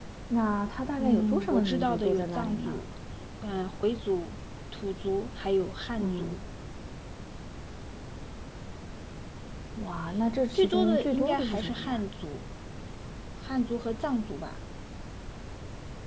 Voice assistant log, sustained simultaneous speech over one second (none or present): present